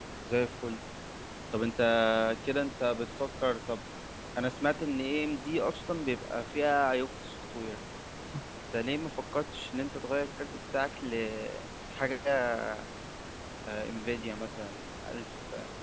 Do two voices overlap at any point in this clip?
No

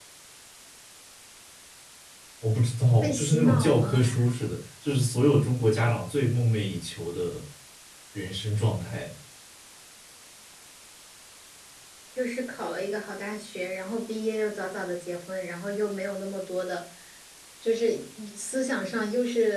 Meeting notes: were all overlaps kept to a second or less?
No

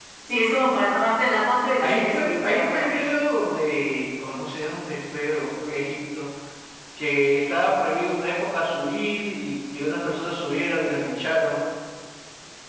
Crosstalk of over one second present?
Yes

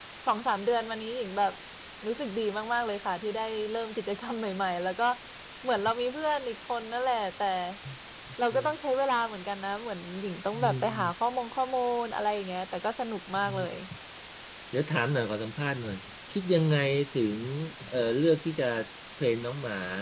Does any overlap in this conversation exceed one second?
No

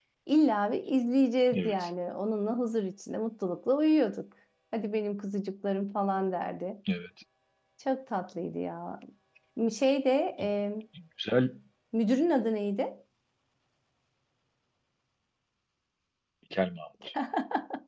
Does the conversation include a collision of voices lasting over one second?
No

